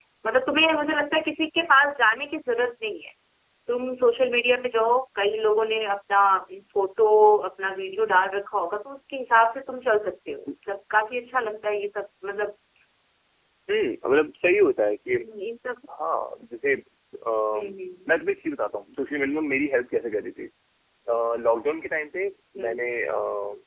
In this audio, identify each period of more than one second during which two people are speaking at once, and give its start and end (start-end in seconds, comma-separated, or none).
none